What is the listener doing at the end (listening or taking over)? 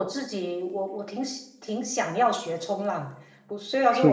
listening